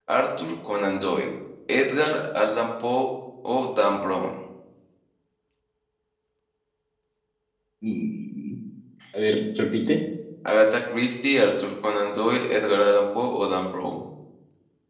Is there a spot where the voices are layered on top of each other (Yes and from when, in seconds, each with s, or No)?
No